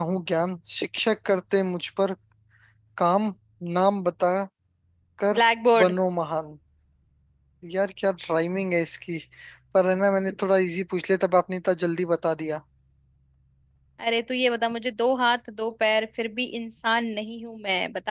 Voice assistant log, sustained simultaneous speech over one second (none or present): none